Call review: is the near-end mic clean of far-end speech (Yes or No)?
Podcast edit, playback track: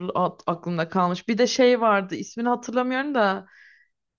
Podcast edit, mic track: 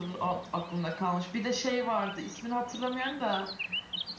No